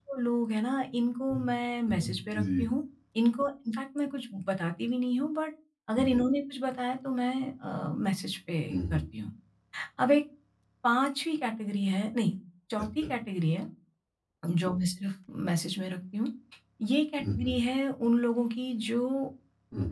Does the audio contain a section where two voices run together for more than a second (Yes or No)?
No